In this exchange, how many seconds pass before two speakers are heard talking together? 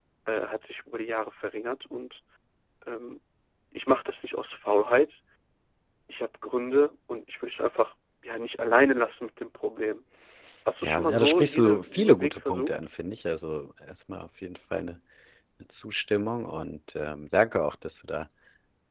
10.8 s

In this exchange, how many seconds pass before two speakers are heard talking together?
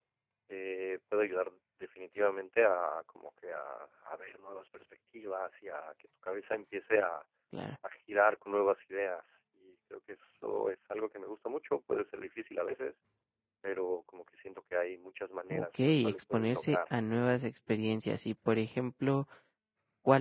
15.5 s

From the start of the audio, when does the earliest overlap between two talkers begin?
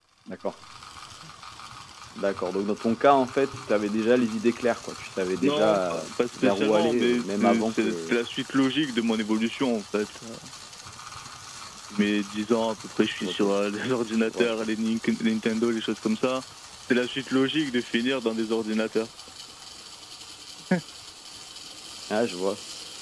5.4 s

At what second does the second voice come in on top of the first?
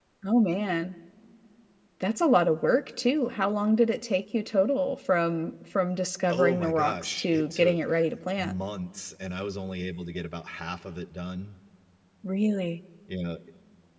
6.3 s

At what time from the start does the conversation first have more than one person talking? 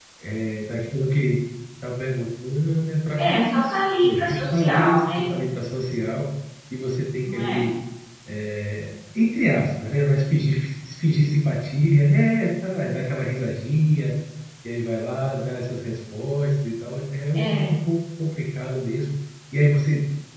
3.2 s

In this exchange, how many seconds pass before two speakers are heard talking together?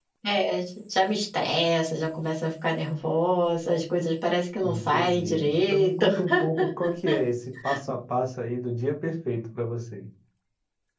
4.6 s

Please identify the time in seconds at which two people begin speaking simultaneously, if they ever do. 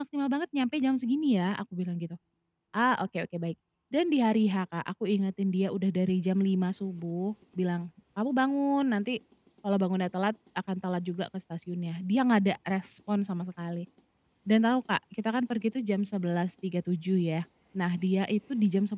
none

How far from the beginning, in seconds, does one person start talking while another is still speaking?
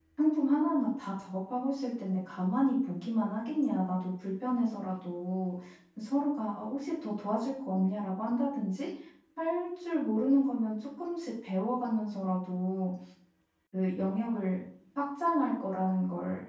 none

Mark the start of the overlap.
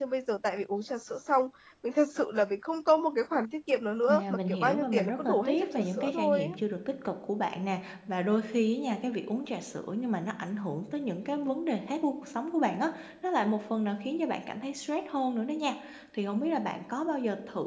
4.1 s

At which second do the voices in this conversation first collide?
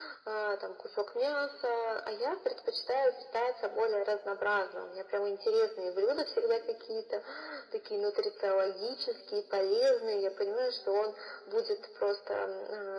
none

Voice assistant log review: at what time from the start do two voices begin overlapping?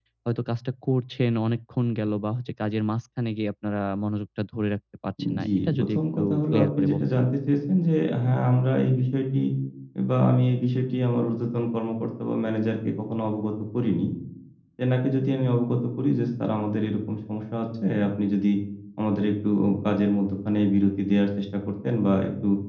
5.2 s

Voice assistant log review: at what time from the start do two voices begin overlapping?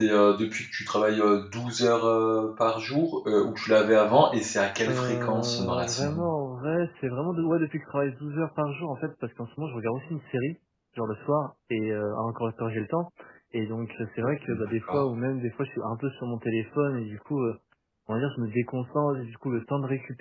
4.9 s

